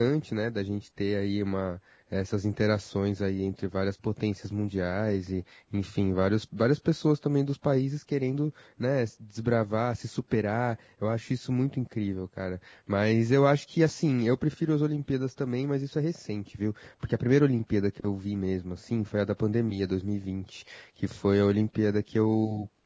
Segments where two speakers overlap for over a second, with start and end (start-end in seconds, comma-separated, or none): none